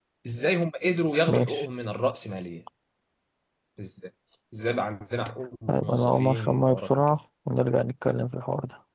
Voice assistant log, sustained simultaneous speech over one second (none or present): present